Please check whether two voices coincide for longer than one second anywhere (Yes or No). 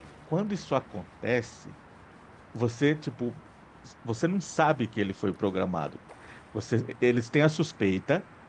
No